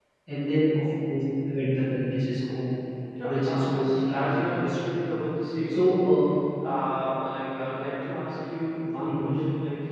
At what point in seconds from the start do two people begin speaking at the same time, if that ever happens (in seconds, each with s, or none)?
3.2 s